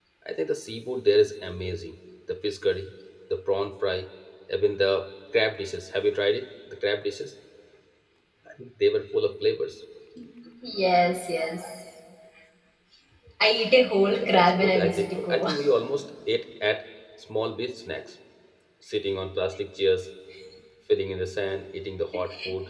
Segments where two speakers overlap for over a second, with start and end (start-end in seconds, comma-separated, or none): 14.0-15.5